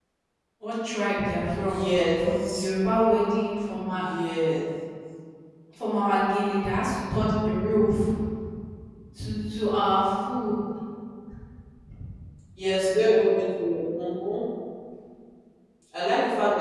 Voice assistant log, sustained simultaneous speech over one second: none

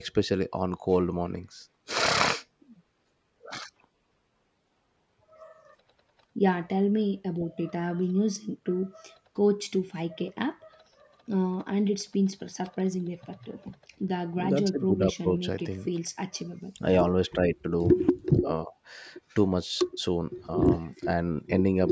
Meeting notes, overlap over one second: present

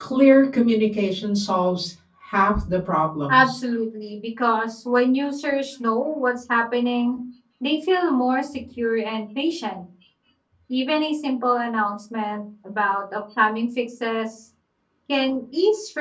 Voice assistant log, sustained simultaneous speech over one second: none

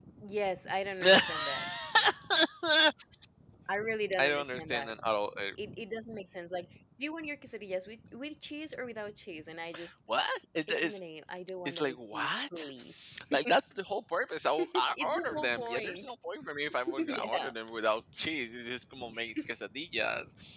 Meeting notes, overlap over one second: present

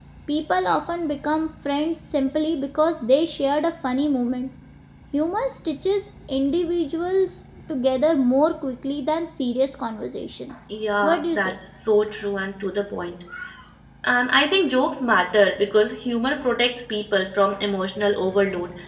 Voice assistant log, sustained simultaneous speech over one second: none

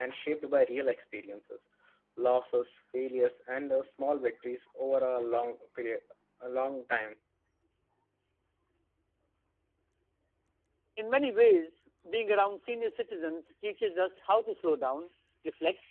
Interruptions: none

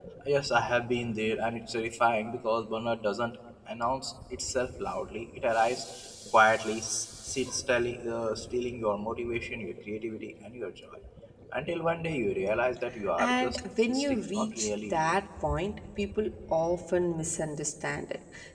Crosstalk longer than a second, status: present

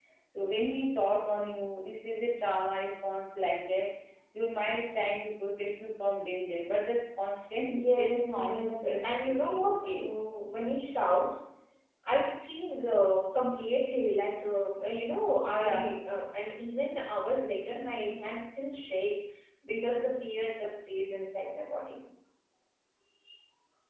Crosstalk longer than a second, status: present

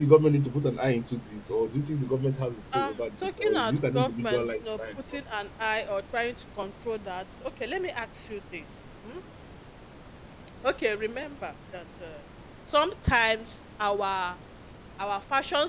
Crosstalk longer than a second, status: present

